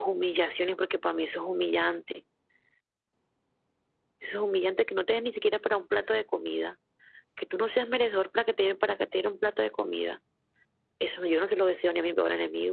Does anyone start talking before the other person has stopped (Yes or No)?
No